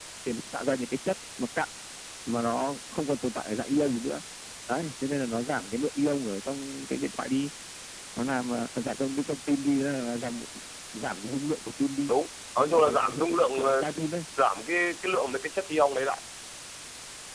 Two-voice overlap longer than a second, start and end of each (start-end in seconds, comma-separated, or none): 12.6-13.8